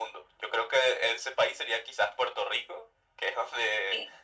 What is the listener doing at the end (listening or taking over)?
listening